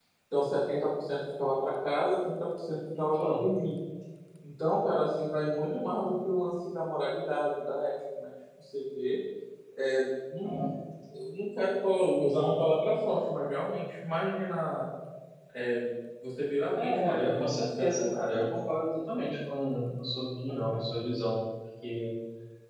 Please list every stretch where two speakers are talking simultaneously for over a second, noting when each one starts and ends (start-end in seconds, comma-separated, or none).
16.8-18.2